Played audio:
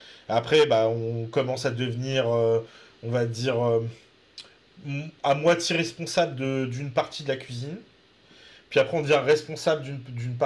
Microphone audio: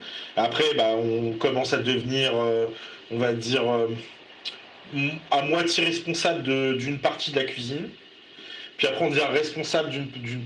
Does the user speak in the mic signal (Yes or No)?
No